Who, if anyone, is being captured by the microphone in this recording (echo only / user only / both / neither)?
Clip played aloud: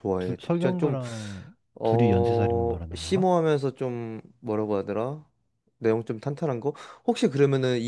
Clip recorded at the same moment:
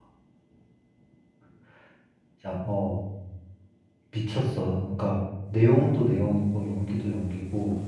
user only